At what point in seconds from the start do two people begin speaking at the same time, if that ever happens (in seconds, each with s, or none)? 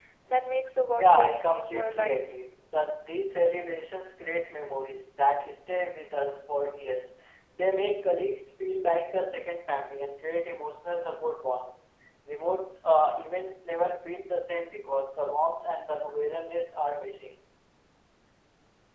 1.0 s